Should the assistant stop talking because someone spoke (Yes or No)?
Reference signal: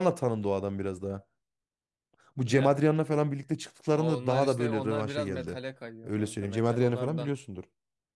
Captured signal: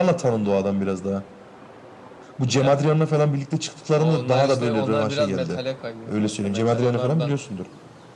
No